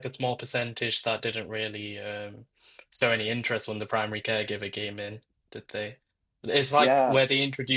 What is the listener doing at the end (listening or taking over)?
listening